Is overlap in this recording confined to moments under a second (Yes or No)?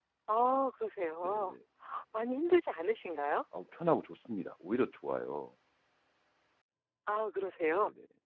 Yes